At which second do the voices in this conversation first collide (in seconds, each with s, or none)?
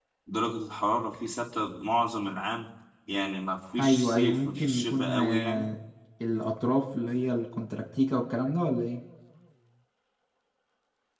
3.8 s